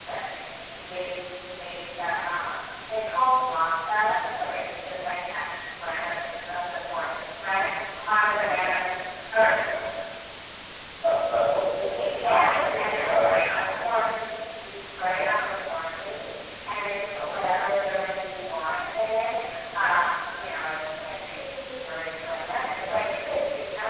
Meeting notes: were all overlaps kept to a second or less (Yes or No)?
No